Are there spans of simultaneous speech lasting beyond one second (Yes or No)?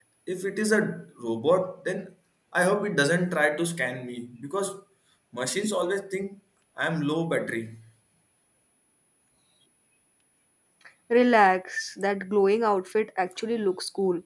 No